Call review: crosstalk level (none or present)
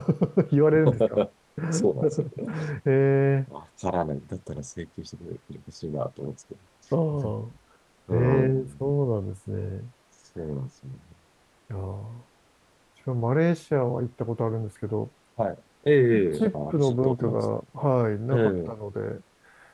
present